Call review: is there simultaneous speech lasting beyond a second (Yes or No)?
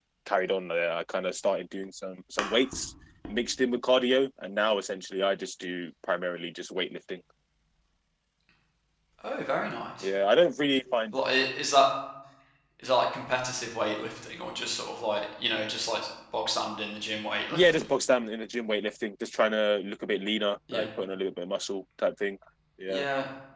No